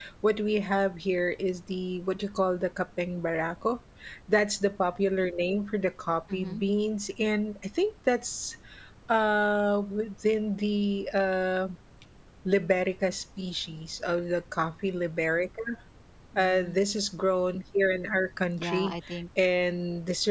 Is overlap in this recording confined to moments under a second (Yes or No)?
Yes